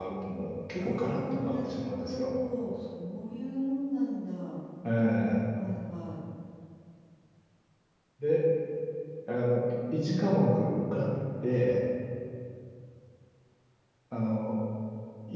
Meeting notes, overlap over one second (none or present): present